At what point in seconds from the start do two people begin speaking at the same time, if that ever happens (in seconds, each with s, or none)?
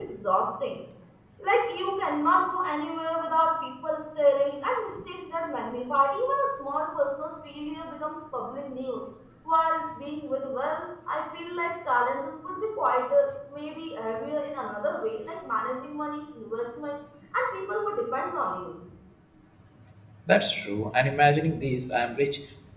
none